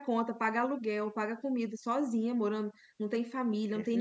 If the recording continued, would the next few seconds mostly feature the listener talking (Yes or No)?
No